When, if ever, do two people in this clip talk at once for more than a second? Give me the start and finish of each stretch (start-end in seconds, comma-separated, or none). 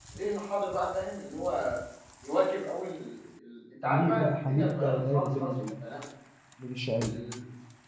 3.8-5.5